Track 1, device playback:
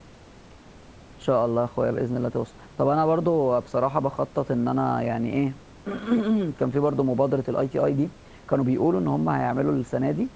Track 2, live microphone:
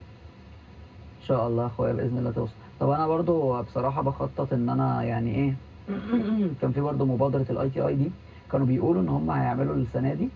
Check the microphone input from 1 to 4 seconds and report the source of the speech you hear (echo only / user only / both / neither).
echo only